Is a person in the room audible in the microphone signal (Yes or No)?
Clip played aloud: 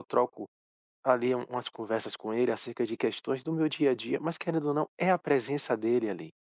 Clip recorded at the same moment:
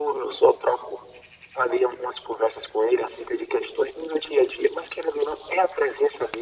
No